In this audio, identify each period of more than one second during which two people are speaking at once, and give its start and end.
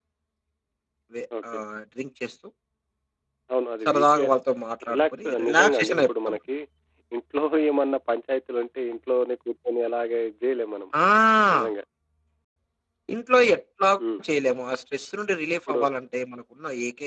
4.9-6.4

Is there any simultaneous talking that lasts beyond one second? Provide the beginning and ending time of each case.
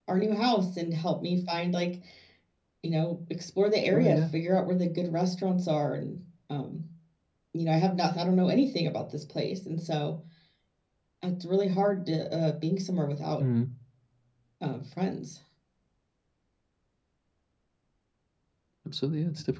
none

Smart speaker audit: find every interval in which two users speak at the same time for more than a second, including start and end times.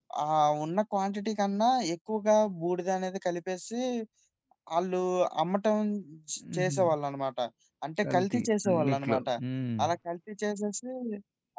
8.0-9.3

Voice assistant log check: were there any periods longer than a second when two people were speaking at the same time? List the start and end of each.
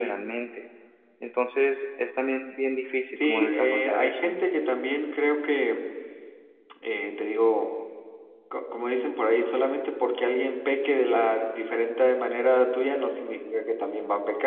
3.1-4.4

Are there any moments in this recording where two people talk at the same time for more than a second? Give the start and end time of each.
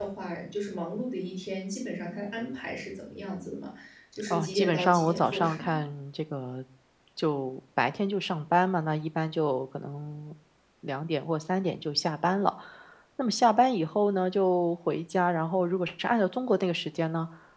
4.3-5.8

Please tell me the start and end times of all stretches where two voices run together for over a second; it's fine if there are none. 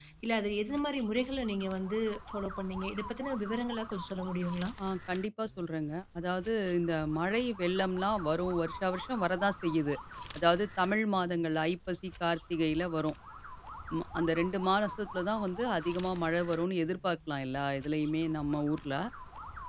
none

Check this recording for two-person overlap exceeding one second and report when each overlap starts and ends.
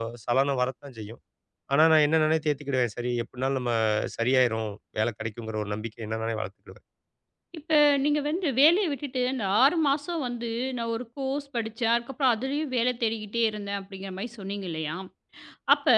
none

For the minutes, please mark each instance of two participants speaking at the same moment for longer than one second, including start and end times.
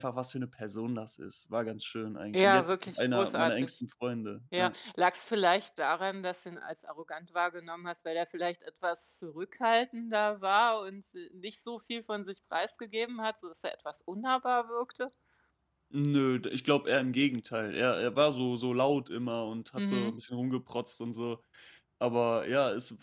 2.3-3.7

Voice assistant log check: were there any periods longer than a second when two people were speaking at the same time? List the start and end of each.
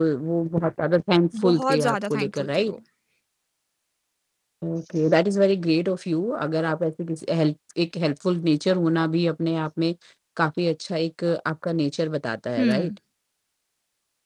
1.4-2.7

